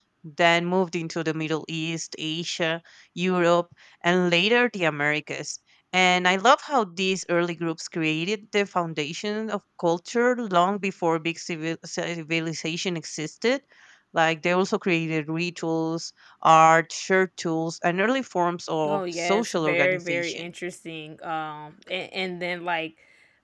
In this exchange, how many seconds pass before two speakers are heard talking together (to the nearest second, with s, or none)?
19 s